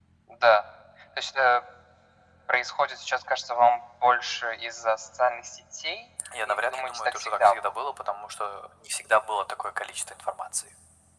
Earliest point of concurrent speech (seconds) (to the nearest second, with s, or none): 6 s